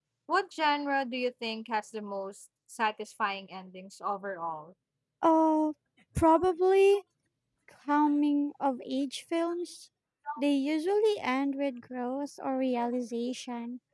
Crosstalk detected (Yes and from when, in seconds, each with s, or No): No